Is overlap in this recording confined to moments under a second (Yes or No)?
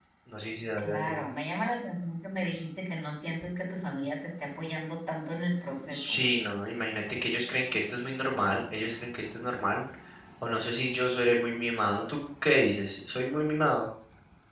Yes